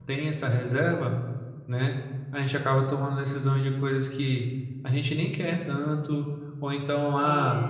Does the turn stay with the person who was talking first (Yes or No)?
Yes